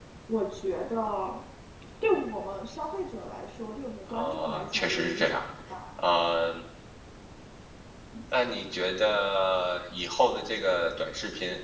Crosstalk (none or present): present